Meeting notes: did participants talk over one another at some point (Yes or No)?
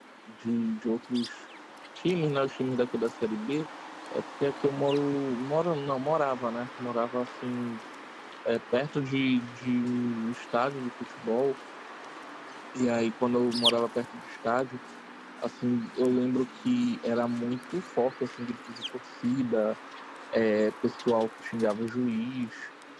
No